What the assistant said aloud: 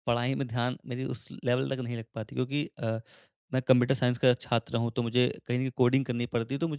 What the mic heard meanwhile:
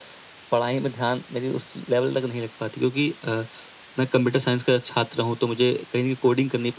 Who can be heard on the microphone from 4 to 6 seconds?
echo only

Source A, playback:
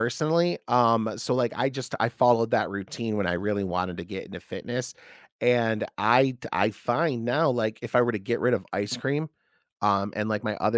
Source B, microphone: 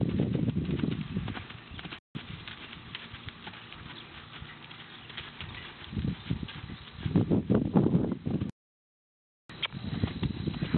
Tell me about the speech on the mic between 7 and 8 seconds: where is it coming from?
neither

